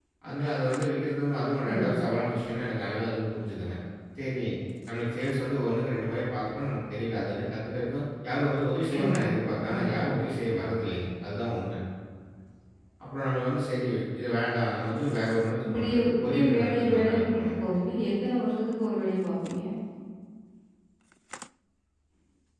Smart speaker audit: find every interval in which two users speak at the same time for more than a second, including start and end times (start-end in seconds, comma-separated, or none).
15.6-17.5